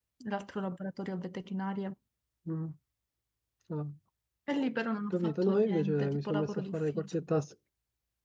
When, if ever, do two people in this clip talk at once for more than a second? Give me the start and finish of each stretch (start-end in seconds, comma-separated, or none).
5.1-7.1